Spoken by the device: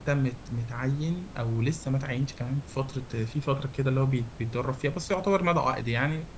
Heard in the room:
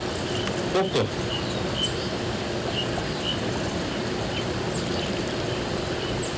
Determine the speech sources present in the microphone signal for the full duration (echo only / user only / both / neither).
user only